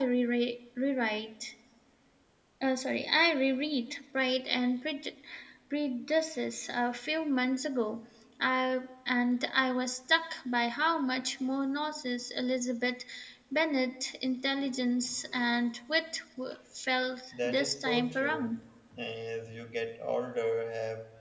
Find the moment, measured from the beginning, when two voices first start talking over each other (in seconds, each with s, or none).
17.4 s